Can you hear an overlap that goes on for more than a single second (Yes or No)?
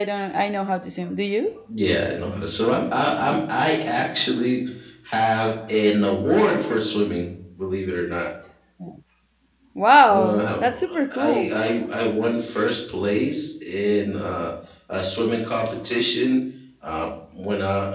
Yes